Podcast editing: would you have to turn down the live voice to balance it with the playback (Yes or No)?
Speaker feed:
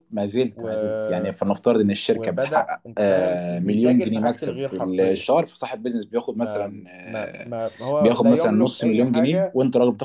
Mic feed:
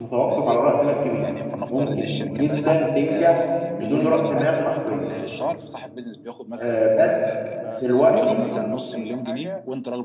Yes